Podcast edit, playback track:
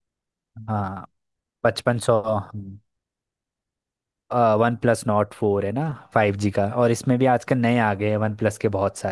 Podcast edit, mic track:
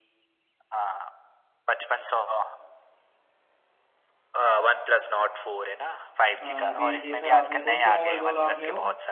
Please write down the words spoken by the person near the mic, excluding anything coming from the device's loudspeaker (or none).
अ, अभी देखा आपने कौन सा मोबाइल बोला आपने वो